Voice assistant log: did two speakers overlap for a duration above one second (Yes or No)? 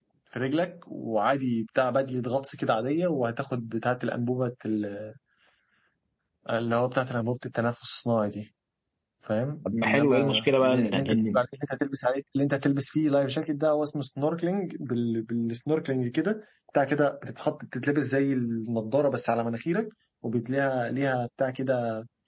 Yes